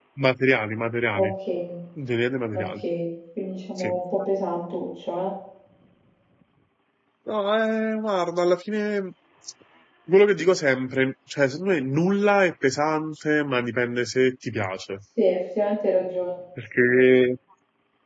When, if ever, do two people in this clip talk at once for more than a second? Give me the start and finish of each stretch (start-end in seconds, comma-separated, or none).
none